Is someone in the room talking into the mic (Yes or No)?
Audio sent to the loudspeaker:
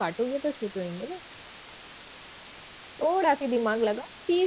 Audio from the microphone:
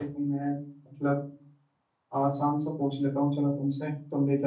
Yes